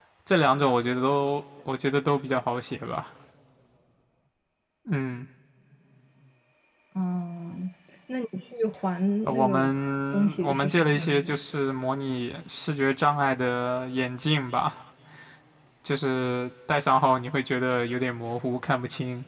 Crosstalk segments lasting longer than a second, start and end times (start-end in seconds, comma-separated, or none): 10.1-11.4